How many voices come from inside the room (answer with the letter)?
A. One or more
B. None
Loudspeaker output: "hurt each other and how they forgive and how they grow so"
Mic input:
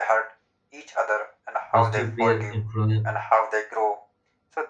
A